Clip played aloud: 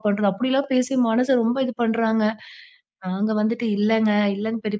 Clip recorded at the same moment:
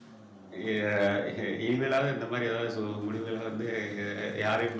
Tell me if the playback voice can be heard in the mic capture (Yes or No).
No